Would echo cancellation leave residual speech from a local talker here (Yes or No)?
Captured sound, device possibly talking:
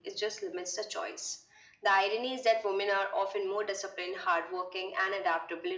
No